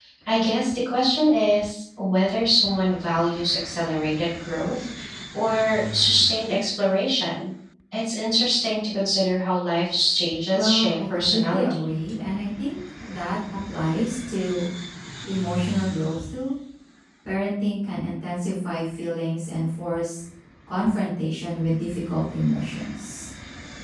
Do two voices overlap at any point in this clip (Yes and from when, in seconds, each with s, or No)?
Yes, from 10.5 s